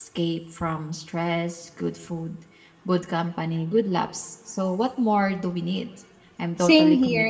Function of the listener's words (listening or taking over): taking over